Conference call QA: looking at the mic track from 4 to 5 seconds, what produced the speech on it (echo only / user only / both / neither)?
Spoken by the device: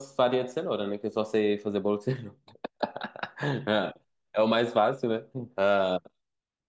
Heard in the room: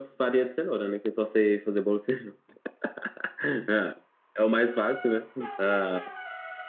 echo only